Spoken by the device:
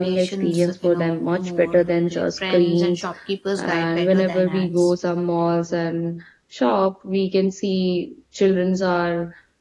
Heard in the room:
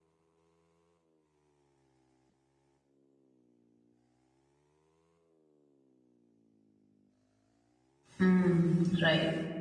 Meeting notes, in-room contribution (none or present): present